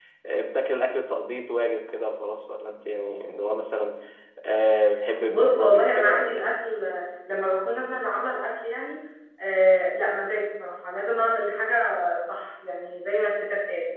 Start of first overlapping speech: 5.3 s

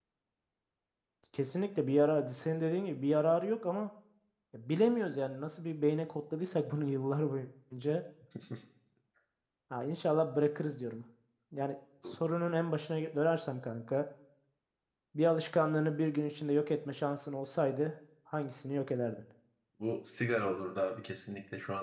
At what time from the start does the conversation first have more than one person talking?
none

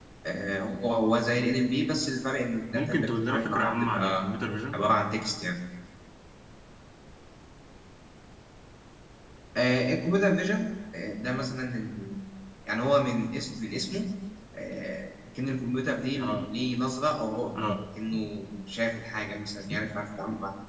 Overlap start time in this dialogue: 2.7 s

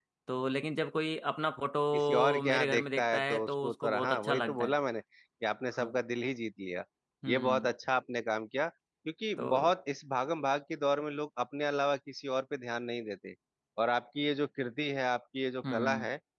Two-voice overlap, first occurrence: 1.9 s

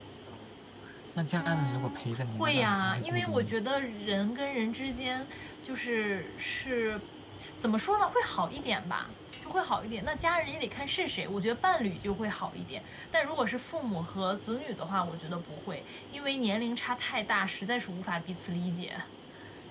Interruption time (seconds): 1.4 s

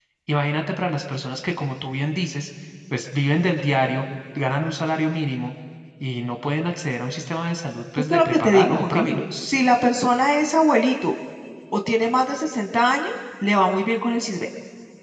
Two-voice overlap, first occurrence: 8.0 s

